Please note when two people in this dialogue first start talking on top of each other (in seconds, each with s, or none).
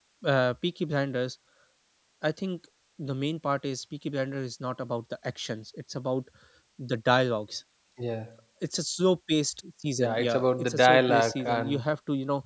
10.0 s